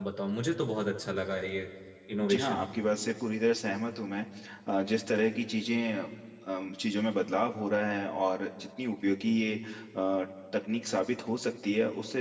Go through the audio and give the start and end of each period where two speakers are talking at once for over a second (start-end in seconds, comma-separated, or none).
none